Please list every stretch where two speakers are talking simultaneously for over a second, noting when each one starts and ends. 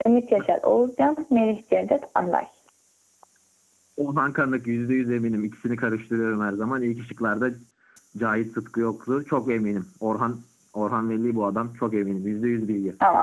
none

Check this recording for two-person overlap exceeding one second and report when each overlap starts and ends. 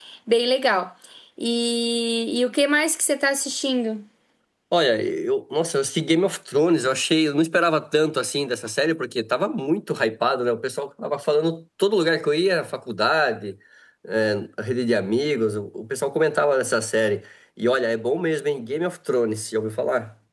none

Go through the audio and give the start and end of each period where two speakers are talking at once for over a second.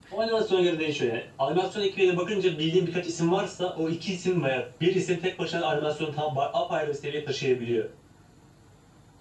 none

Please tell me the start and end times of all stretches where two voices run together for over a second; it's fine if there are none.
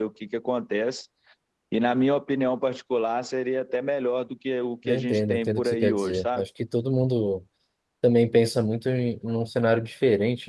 4.9-6.4

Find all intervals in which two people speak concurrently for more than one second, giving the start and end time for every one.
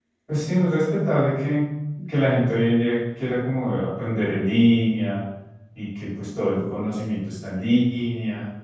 none

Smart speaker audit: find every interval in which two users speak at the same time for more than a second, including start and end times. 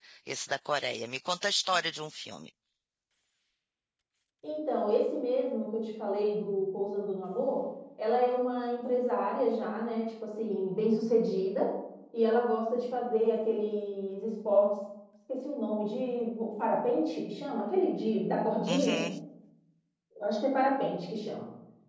none

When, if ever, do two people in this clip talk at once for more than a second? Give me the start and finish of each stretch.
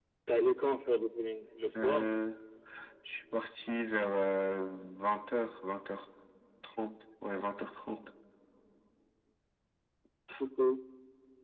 none

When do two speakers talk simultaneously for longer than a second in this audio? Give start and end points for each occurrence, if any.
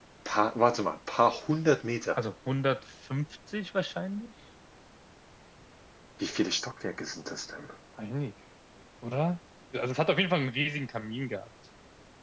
none

